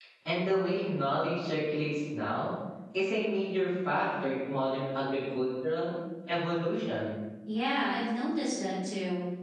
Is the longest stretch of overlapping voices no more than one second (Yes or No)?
Yes